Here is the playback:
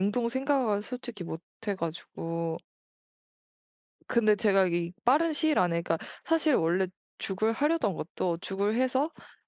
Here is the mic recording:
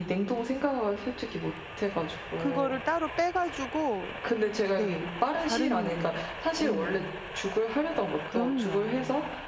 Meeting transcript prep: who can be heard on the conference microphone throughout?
both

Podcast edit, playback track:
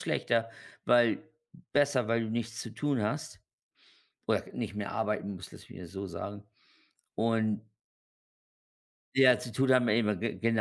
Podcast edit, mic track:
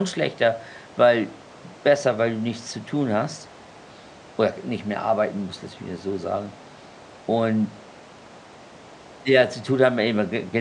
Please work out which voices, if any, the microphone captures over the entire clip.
echo only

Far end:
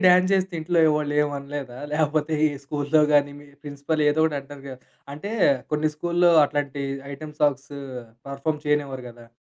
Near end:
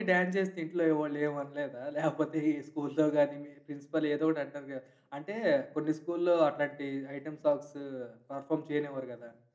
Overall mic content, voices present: echo only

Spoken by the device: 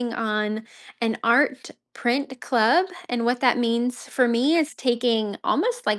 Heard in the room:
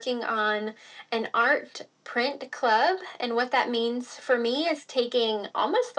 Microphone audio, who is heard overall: echo only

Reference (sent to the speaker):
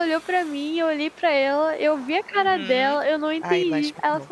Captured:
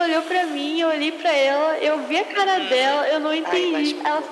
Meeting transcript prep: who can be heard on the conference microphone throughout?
echo only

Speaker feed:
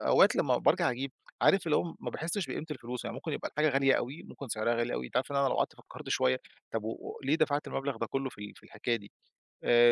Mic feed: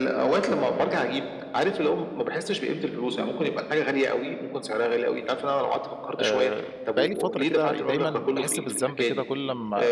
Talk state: both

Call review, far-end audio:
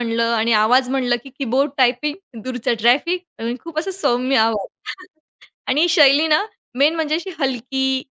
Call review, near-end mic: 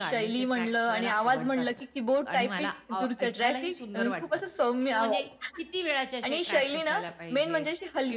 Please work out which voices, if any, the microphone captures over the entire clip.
both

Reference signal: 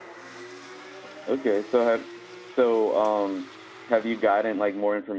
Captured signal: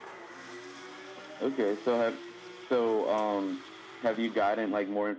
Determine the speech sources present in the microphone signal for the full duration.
echo only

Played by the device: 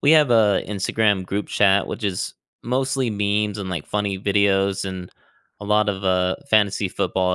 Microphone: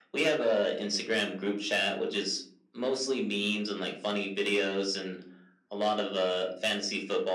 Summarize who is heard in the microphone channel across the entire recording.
echo only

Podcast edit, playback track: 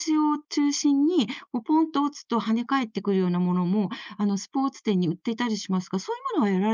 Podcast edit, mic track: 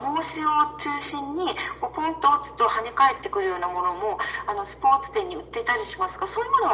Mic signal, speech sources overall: echo only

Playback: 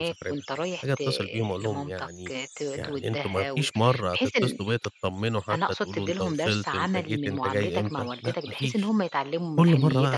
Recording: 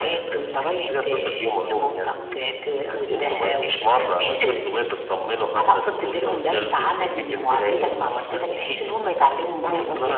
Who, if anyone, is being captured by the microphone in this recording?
echo only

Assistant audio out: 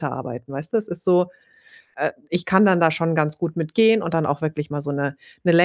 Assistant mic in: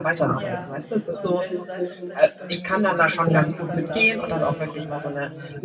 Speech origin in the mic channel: both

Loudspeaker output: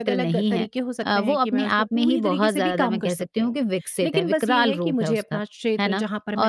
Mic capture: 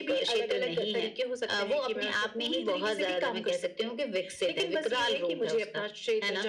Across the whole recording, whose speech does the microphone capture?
echo only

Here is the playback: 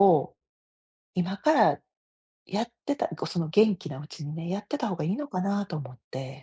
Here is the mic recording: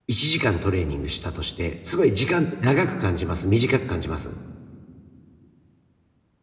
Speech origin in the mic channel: user only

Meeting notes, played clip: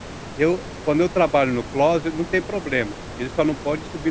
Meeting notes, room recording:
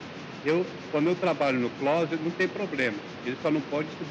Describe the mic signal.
echo only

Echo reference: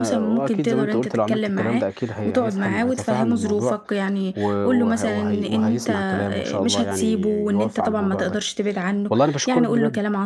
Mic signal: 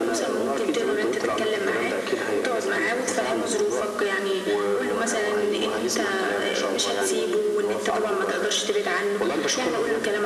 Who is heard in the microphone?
echo only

